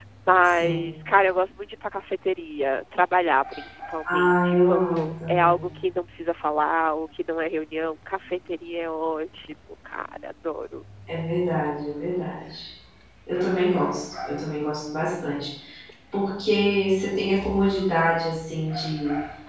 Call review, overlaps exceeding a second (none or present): present